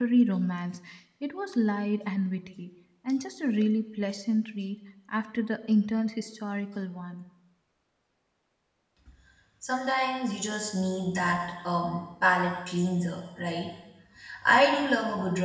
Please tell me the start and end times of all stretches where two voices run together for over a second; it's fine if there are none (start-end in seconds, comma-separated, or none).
none